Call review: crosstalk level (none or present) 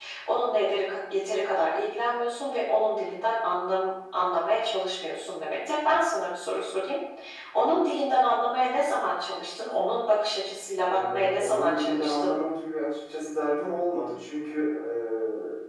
present